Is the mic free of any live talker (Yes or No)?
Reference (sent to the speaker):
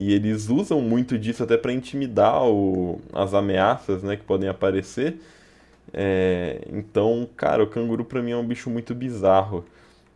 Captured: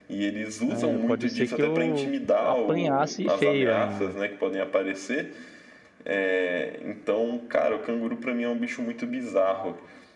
No